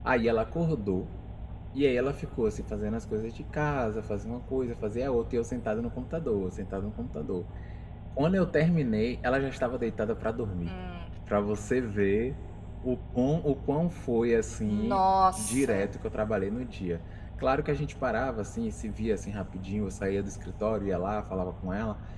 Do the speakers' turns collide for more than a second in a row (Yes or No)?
No